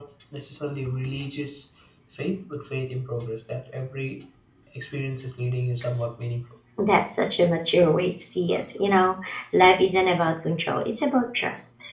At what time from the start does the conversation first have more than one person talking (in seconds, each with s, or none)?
none